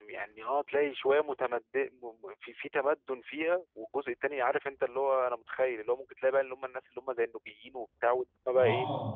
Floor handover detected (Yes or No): Yes